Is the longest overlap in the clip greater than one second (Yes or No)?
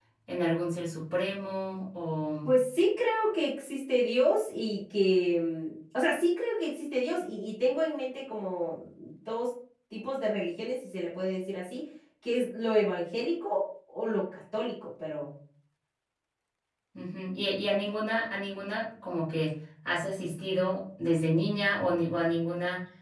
No